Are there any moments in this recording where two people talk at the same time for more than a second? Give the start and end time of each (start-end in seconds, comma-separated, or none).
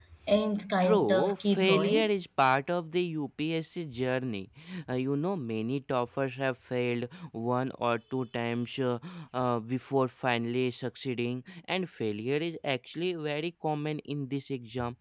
0.8-2.1